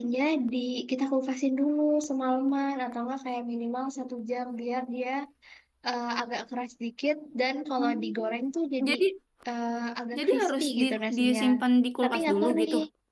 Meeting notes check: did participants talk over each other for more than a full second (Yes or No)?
Yes